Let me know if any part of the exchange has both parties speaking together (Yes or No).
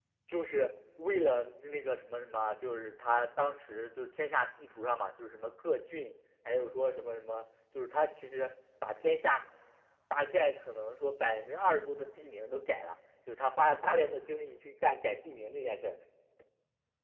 No